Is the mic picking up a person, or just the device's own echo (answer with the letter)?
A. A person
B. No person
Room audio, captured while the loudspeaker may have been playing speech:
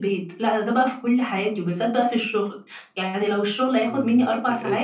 A